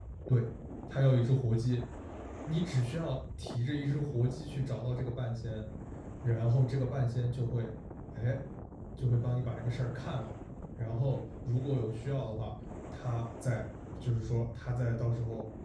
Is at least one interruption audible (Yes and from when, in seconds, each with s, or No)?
No